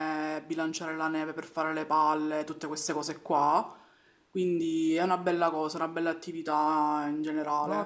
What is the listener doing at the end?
taking over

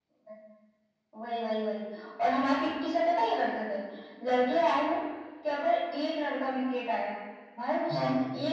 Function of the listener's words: listening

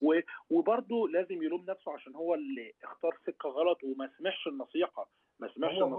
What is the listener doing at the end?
listening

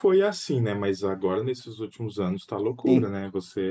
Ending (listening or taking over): listening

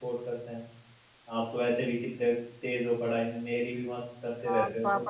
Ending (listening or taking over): taking over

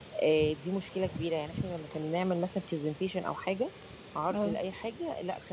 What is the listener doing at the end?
listening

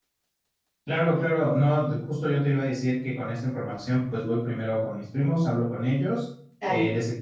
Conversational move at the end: listening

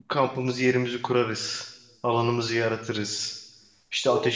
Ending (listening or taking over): listening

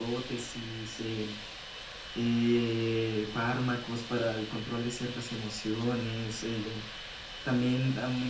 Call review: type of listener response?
listening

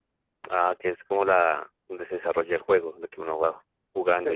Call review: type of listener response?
taking over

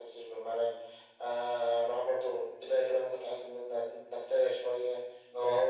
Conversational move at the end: listening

